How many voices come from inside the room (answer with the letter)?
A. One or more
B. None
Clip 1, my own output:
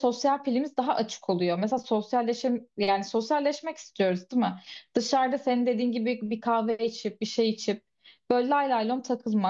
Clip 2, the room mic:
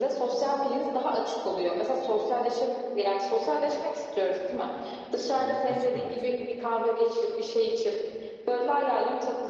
A